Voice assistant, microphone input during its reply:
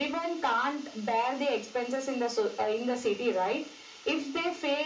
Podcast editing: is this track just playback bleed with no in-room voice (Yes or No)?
Yes